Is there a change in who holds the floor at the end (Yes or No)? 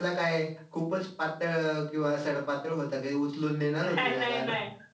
Yes